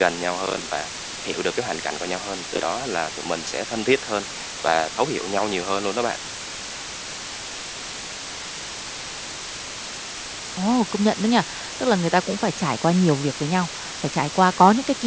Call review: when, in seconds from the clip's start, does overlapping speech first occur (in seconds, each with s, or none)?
none